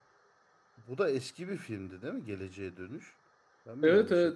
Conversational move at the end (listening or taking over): taking over